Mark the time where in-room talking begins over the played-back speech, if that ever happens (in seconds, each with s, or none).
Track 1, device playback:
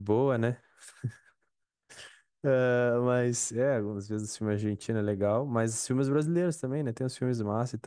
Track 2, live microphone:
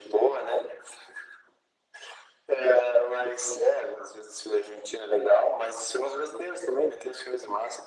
none